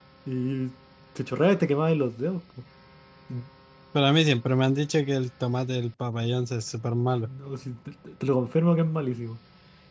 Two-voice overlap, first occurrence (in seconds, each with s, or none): none